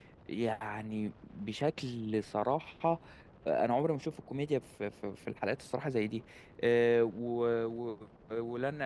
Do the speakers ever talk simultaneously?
No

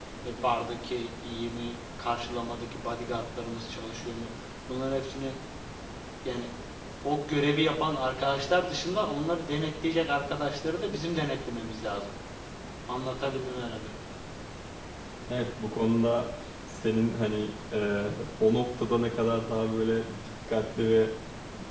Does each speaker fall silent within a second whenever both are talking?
Yes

